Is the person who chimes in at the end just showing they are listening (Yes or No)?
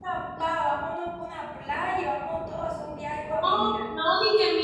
No